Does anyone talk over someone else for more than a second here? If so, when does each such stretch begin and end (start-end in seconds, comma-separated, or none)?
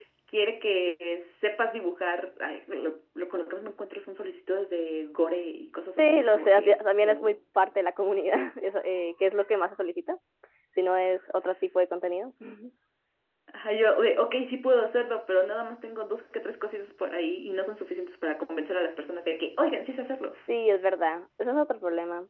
6.0-7.4